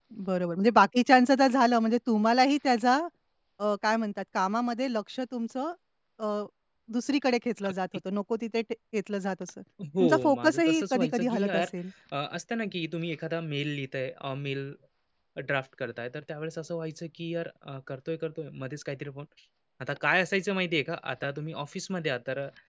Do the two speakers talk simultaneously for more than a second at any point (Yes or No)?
Yes